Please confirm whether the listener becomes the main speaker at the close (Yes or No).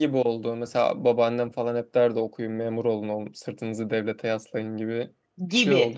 Yes